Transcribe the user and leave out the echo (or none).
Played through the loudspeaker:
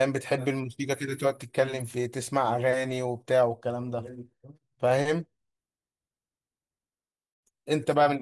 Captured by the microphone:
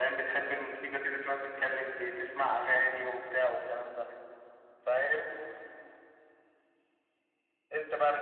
none